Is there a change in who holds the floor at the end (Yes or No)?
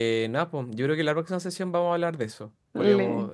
No